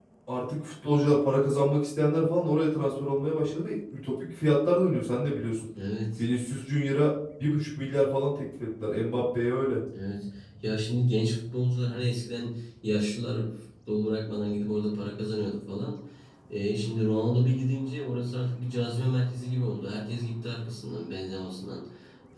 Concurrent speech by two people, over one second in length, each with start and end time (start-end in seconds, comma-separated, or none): none